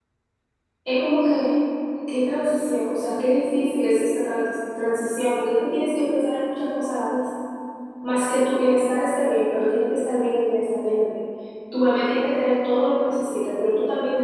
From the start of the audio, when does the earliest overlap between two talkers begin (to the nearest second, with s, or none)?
none